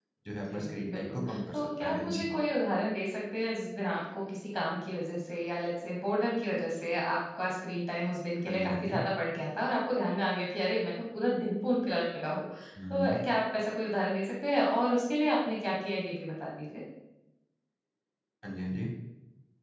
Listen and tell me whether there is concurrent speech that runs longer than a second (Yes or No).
Yes